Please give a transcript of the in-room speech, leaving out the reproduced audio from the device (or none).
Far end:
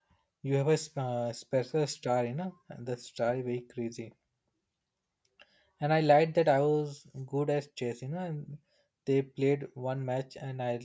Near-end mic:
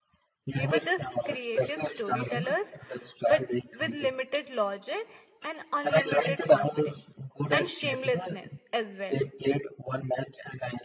we were just creative storytellers but with limited logic and unlimited confidence and shamelessness as well